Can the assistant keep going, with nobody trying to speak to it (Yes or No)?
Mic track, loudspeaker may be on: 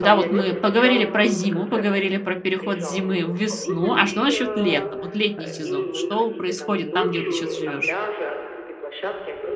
No